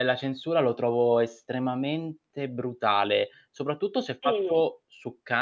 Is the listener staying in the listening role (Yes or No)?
Yes